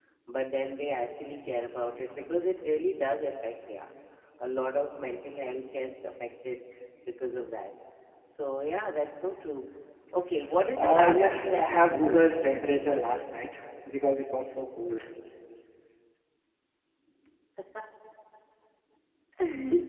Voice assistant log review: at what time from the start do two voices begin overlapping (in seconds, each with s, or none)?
10.8 s